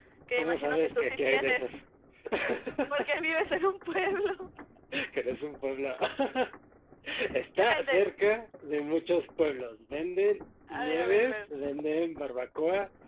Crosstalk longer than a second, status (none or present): present